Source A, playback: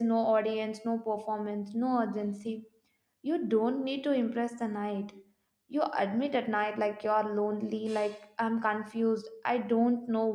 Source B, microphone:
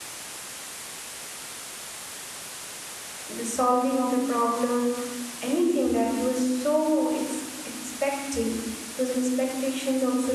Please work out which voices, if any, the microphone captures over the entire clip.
user only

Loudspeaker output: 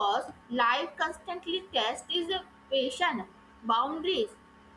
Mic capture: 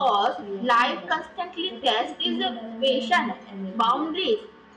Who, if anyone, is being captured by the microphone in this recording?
both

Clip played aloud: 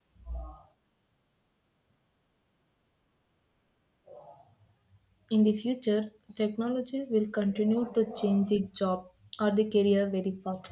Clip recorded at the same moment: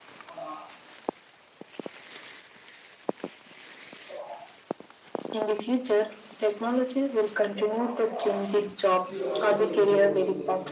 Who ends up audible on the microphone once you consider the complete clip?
both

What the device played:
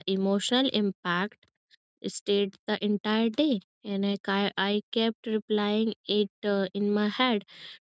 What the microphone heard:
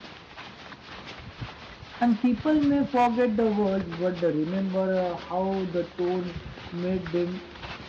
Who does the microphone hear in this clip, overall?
user only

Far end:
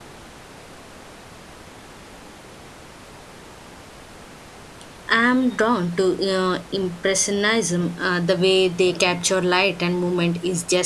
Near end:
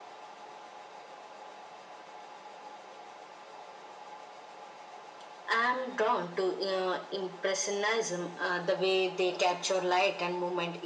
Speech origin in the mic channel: echo only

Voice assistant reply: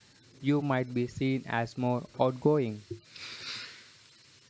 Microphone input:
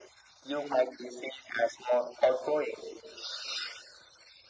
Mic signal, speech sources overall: echo only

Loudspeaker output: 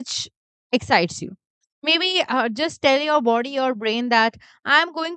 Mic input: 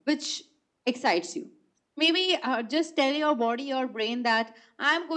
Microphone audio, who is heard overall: echo only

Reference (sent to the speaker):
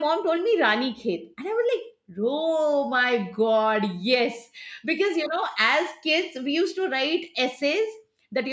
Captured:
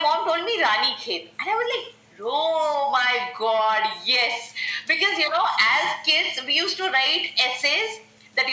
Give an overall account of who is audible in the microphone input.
echo only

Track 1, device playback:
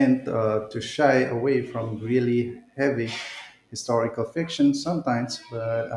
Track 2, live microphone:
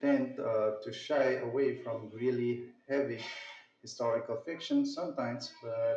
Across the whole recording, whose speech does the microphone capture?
echo only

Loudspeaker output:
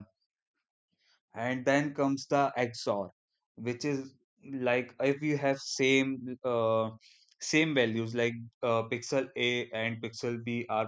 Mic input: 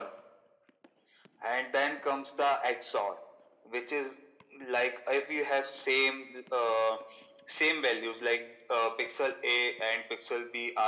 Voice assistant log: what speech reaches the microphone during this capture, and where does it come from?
echo only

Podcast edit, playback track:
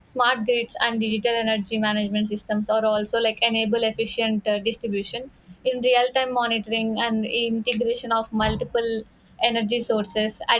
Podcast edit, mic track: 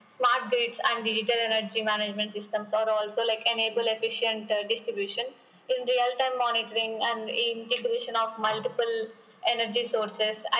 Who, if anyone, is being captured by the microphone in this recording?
echo only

